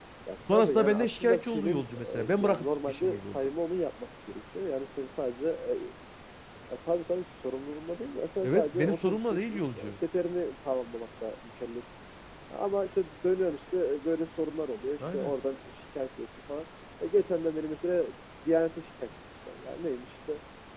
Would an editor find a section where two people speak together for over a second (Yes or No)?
Yes